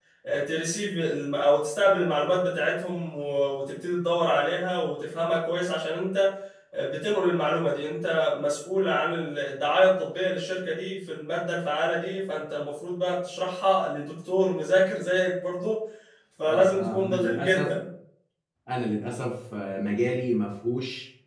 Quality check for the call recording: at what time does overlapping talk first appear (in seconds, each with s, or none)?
16.5 s